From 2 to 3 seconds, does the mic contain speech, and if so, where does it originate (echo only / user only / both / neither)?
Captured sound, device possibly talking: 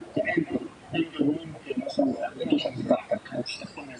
both